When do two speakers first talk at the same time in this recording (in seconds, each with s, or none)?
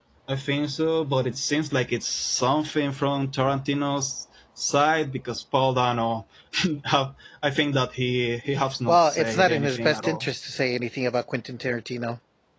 8.9 s